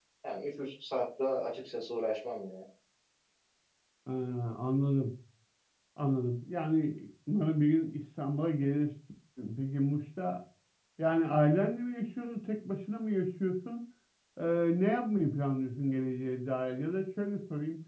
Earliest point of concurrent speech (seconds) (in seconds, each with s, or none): none